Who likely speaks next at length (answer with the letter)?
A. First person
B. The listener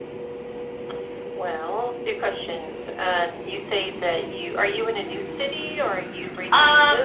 B